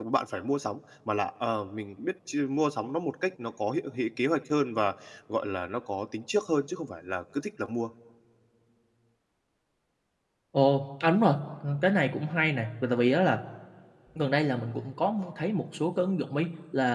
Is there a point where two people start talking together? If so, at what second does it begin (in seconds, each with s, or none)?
none